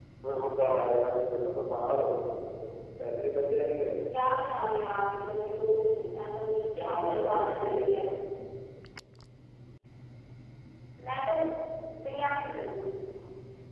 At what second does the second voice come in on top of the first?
7 s

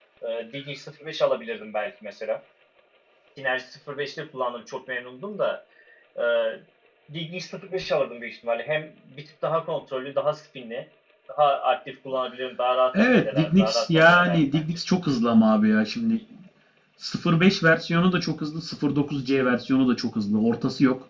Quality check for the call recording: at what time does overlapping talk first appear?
13 s

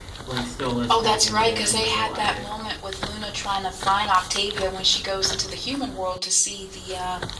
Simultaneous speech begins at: 1 s

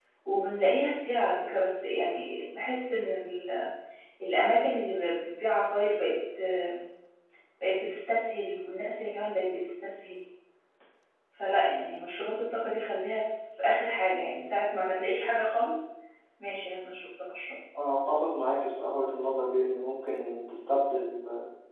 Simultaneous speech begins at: none

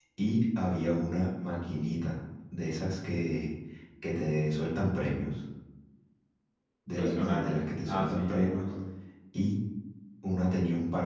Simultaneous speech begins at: 7 s

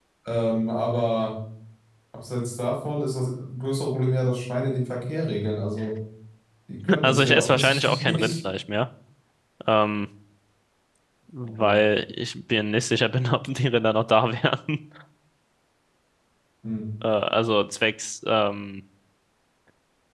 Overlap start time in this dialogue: 7 s

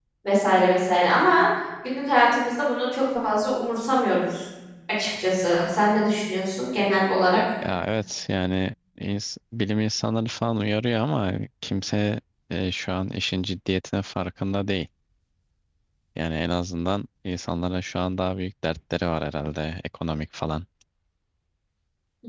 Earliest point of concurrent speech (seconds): none

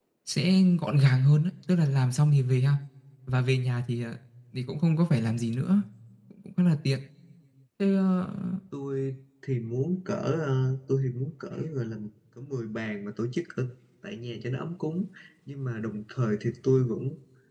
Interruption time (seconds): none

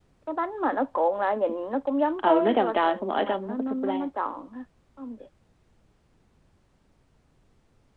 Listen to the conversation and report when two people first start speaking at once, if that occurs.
2 s

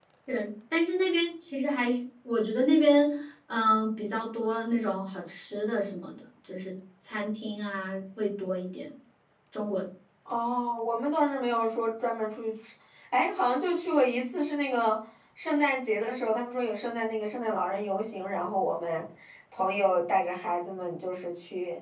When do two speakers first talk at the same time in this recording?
none

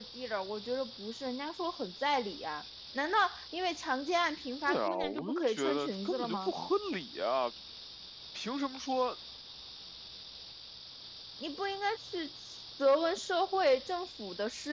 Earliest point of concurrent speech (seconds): 5 s

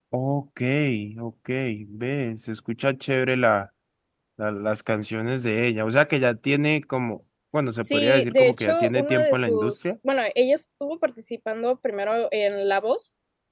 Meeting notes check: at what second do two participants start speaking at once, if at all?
8 s

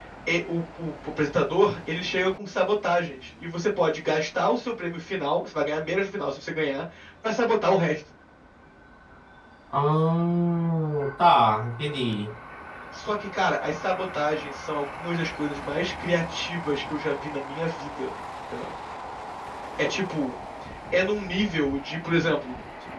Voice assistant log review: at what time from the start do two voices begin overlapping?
none

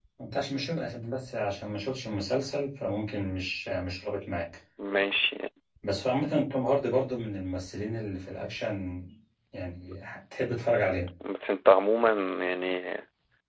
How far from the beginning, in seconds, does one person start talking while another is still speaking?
none

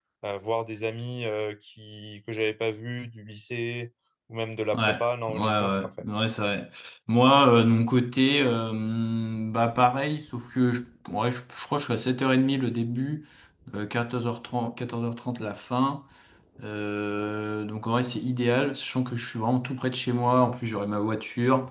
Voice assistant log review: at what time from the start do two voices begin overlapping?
5 s

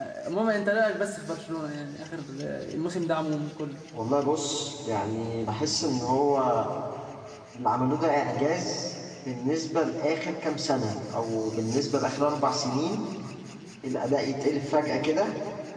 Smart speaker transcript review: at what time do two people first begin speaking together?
none

